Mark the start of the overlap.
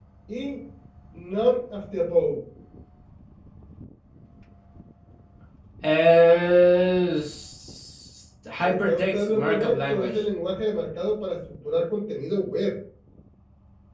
8.6 s

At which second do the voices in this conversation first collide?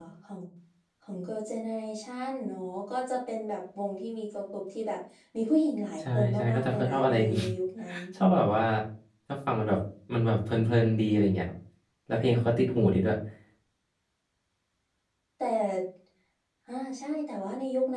6.0 s

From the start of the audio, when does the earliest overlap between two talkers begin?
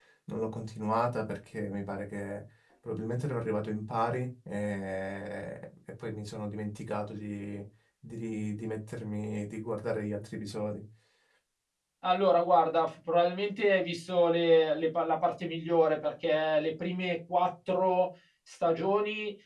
none

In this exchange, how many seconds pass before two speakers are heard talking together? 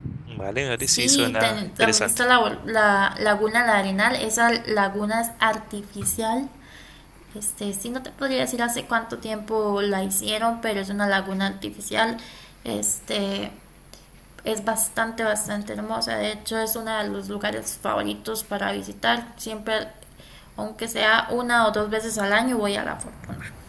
0.9 s

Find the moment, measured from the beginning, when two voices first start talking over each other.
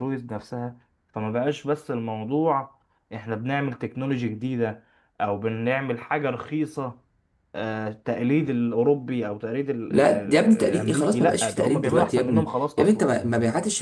9.9 s

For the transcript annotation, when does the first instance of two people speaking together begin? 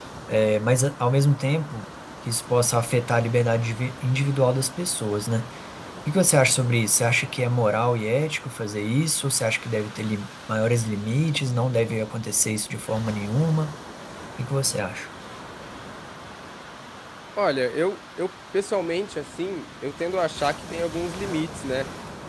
none

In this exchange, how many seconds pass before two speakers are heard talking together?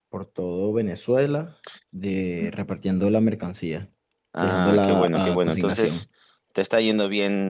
4.4 s

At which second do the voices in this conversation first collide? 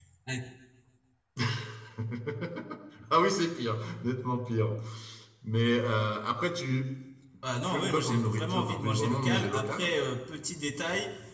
7.7 s

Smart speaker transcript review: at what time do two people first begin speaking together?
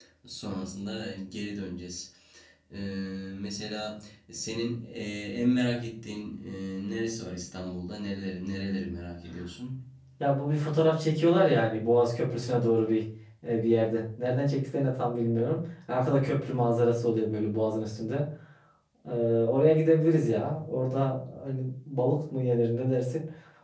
none

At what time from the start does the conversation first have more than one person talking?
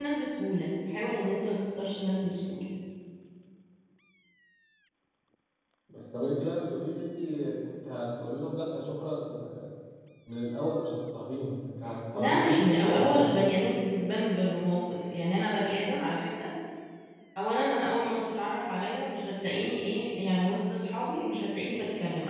12.1 s

